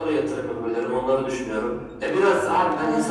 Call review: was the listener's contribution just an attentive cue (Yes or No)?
Yes